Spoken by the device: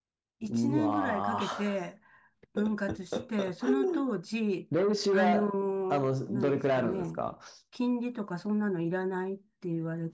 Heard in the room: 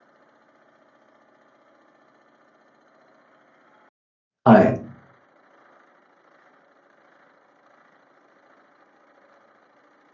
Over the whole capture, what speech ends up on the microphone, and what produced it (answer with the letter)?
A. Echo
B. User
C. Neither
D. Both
B